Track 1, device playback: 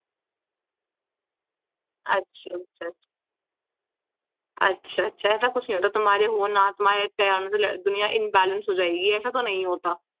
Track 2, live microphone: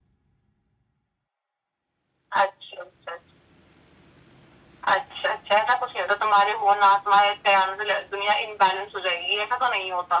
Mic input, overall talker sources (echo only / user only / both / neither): echo only